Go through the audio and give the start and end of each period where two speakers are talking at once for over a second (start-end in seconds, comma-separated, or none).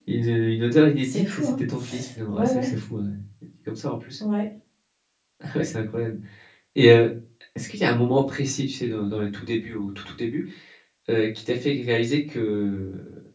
1.0-2.7